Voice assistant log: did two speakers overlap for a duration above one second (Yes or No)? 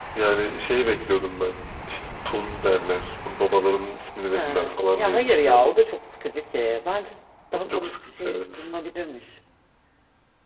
Yes